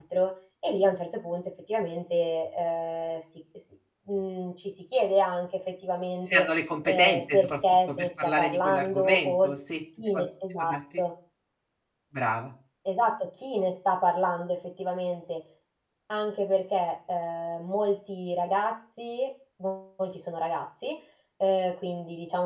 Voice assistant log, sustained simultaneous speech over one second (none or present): present